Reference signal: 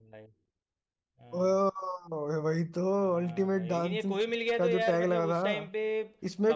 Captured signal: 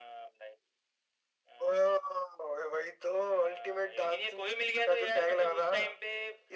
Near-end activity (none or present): none